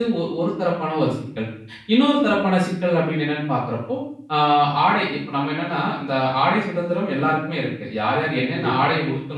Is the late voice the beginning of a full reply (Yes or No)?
No